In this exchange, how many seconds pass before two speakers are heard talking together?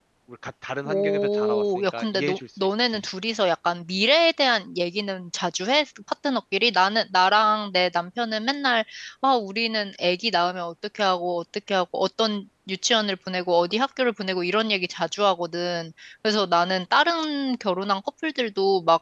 1 s

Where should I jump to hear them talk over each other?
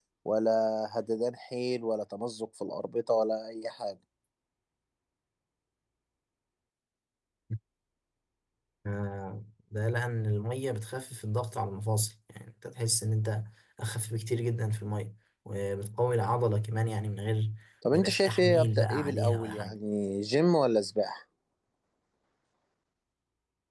18 s

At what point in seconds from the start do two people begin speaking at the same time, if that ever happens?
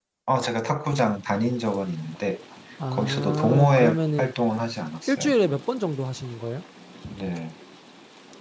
3 s

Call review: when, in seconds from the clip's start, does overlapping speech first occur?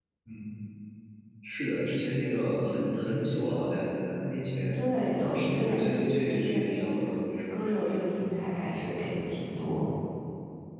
5 s

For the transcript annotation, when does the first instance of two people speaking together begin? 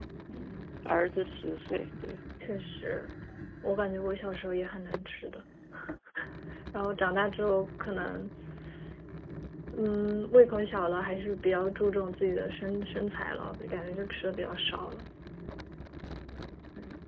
none

